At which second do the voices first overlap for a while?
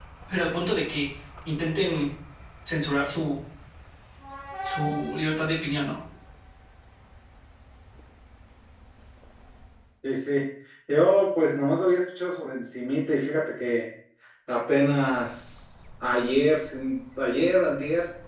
none

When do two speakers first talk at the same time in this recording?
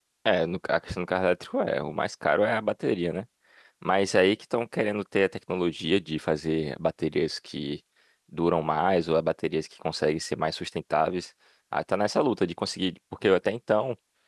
none

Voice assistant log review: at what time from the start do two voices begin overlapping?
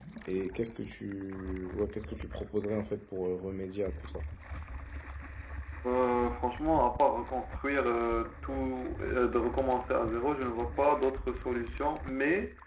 none

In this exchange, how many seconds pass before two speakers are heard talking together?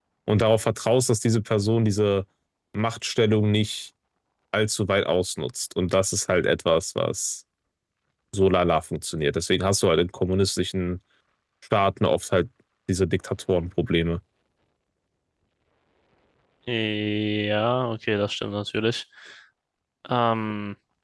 none

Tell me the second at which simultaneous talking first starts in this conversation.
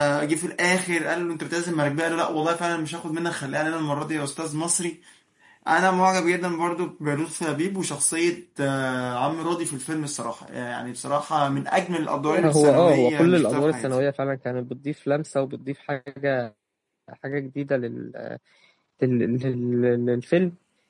12.3 s

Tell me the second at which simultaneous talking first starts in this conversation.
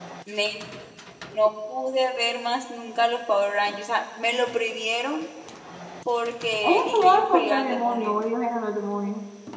6.6 s

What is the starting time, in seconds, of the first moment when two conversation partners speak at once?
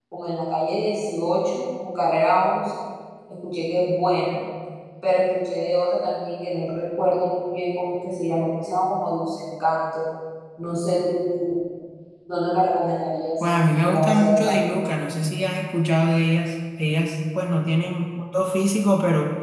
13.4 s

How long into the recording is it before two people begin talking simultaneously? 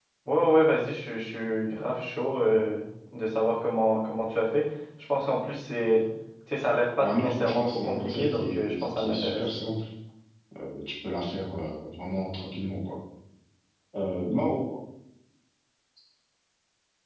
7.0 s

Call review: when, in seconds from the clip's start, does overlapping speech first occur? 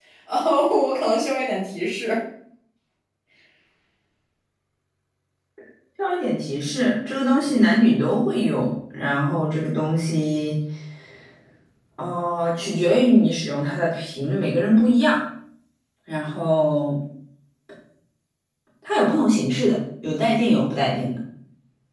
none

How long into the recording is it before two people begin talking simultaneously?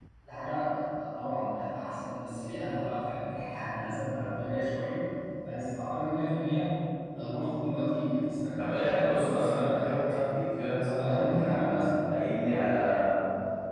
8.6 s

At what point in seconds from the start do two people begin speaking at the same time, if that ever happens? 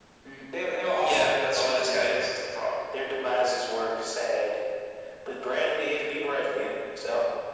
0.8 s

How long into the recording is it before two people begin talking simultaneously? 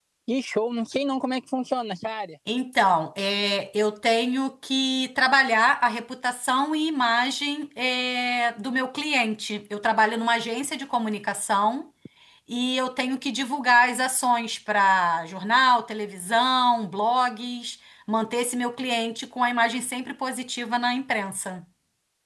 none

